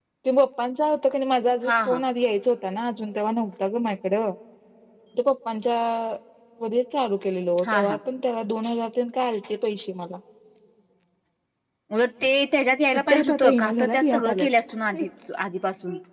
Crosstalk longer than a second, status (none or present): present